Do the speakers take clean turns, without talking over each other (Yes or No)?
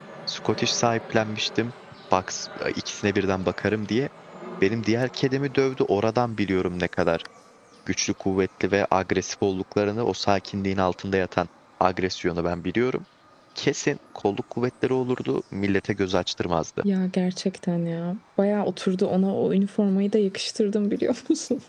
Yes